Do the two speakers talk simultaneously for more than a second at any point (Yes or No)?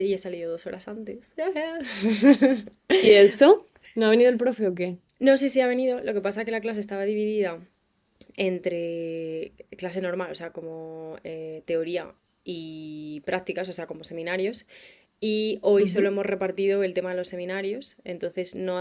No